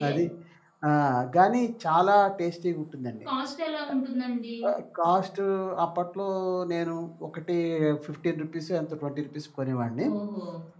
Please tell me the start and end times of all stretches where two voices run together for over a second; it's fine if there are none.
none

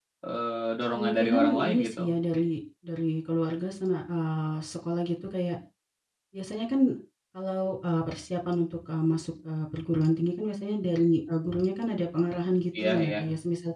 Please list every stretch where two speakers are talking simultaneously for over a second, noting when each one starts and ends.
0.9-2.1

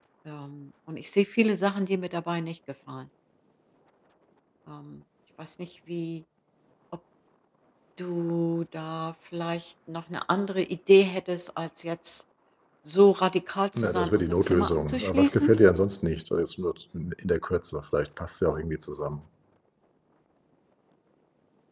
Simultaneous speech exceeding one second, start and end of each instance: 13.8-15.6

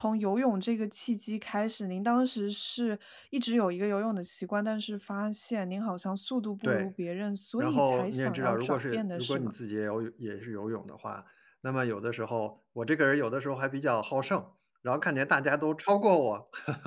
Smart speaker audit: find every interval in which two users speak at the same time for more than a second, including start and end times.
7.6-9.5

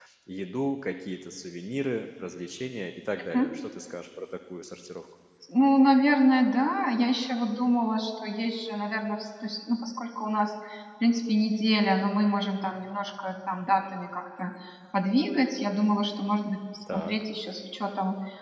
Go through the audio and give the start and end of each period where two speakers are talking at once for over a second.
none

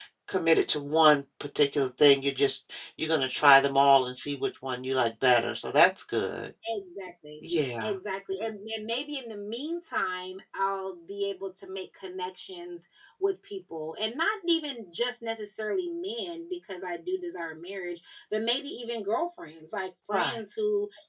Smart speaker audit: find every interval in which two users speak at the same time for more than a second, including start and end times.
none

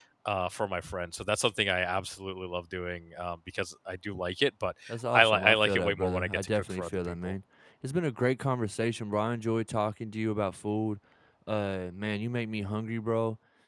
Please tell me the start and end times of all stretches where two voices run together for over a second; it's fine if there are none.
5.1-7.3

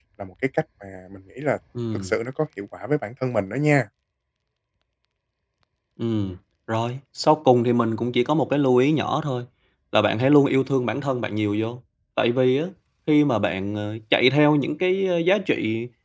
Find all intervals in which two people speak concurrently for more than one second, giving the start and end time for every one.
none

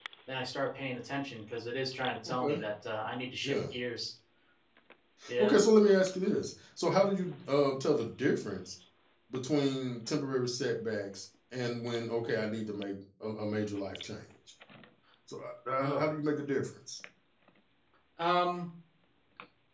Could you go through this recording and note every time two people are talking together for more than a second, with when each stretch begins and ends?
none

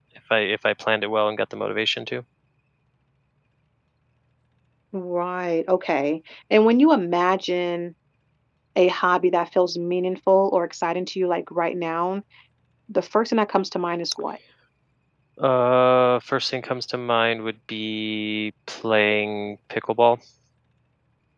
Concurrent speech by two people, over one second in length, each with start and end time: none

